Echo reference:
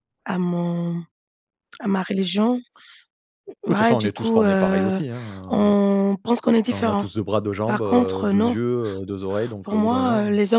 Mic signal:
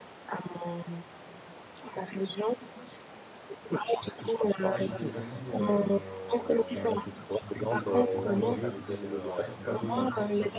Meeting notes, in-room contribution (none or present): present